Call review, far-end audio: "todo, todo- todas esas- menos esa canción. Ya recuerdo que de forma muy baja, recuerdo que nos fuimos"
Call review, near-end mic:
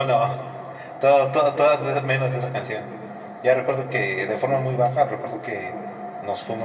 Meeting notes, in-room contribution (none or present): none